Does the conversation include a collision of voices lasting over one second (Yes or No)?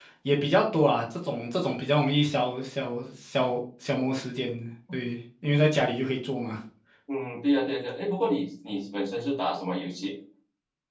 No